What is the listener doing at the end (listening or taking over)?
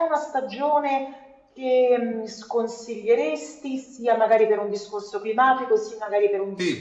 listening